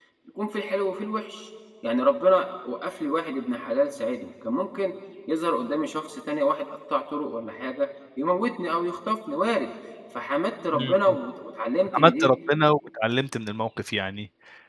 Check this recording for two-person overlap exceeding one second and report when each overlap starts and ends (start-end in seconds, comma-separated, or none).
none